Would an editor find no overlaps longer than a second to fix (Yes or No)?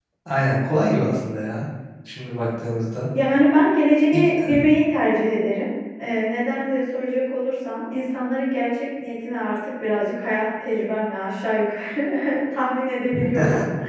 Yes